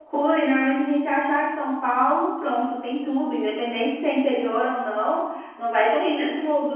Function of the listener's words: listening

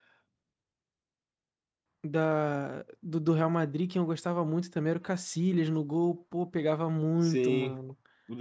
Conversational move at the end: taking over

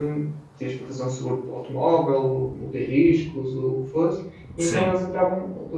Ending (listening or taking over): listening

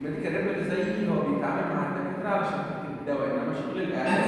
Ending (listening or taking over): listening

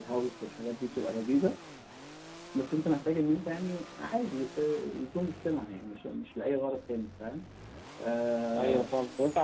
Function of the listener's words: taking over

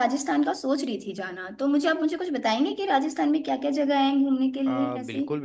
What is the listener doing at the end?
taking over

